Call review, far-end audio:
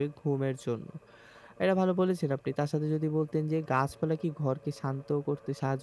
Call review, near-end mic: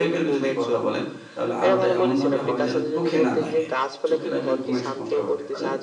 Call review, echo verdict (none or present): present